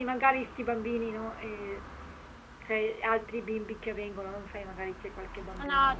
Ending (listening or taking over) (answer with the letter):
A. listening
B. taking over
B